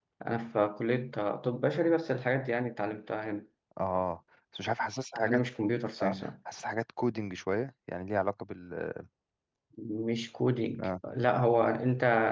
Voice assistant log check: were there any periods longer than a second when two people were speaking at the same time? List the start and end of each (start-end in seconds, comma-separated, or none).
none